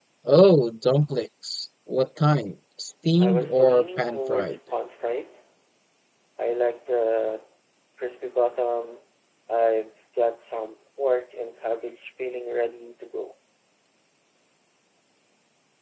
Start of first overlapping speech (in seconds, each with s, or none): 3.2 s